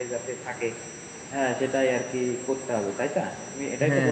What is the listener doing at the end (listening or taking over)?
taking over